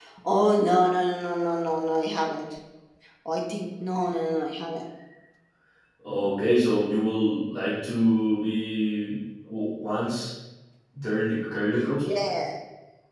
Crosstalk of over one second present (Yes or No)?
No